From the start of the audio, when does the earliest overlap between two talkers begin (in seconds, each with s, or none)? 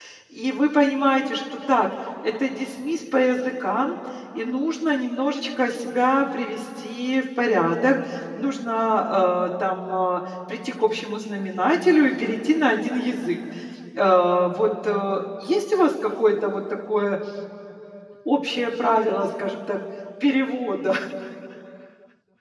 none